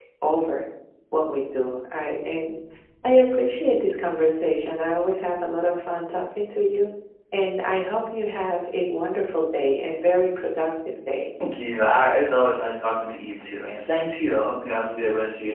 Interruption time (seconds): none

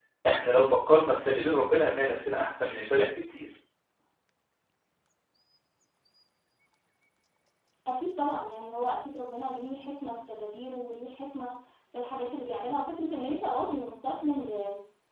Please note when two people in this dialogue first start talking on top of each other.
none

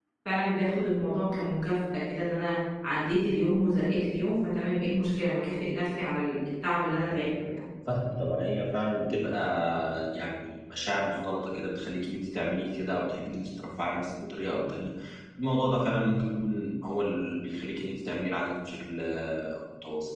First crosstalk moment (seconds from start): none

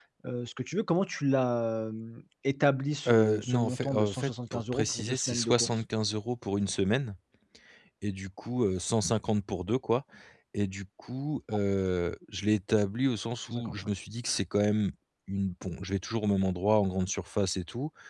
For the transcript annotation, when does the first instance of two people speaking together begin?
3.1 s

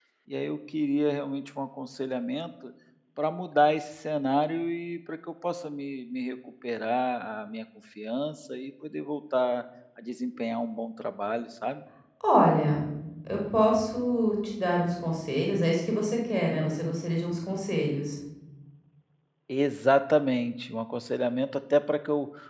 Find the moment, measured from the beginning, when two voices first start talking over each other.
none

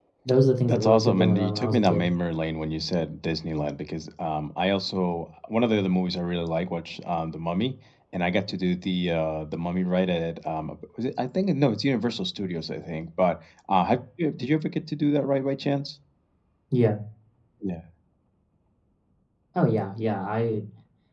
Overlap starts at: 0.7 s

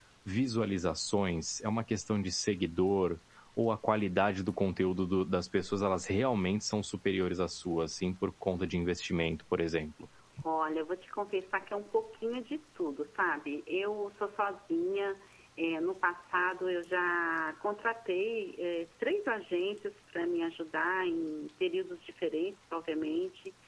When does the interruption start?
none

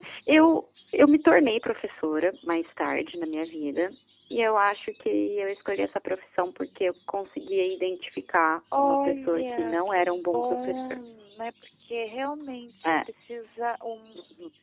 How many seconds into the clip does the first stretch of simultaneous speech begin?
8.7 s

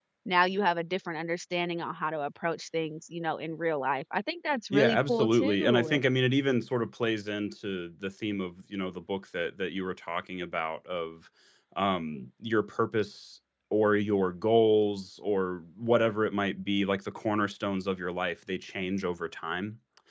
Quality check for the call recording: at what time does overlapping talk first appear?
4.7 s

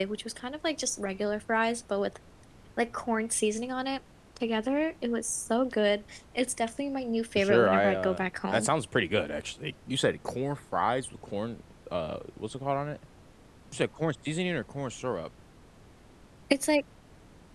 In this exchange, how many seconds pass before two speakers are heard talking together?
7.4 s

